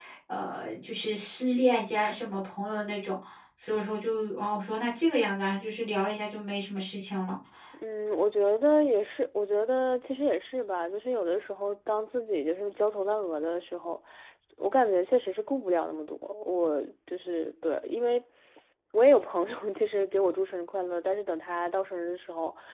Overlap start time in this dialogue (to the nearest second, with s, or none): none